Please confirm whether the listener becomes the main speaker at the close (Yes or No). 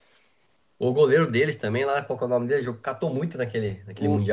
Yes